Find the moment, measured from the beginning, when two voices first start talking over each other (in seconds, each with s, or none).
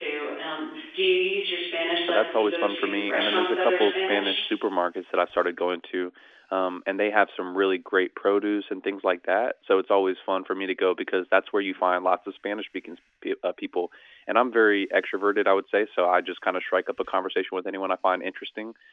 2.1 s